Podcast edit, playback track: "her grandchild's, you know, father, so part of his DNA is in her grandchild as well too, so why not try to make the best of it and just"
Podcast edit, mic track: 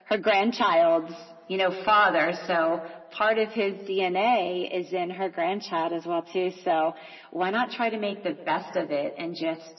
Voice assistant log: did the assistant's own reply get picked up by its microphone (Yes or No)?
Yes